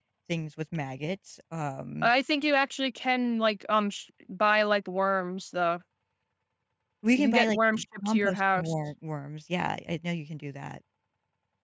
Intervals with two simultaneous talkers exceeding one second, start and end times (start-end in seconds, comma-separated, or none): 7.2-8.7